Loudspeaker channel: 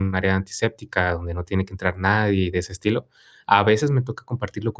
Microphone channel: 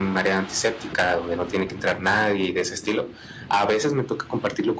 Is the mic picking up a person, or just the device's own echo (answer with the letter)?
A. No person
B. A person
A